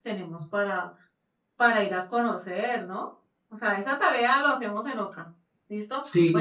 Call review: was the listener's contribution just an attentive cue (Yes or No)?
Yes